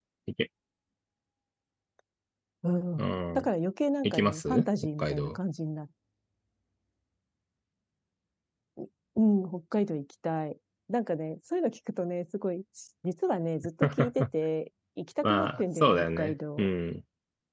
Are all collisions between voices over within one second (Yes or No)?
No